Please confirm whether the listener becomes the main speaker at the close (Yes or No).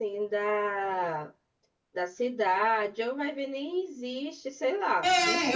Yes